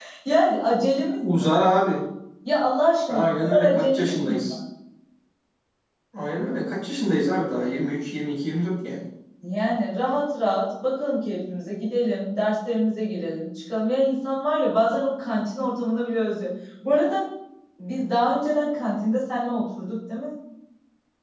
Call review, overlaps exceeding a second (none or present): present